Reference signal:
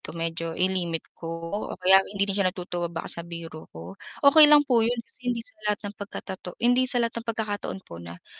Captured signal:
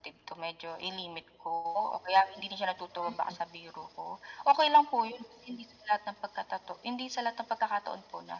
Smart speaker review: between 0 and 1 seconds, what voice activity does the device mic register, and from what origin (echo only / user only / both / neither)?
echo only